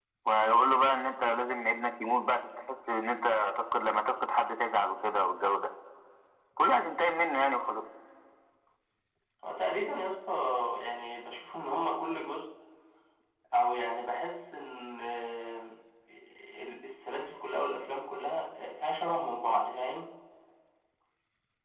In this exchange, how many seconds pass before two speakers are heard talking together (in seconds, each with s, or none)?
none